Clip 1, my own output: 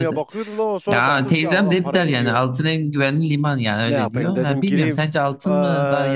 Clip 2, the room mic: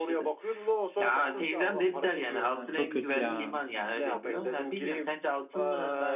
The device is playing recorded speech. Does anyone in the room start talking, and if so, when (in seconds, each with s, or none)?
2.3 s